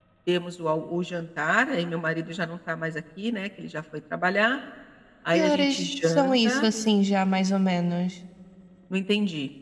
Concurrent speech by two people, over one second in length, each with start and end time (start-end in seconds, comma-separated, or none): 5.3-6.7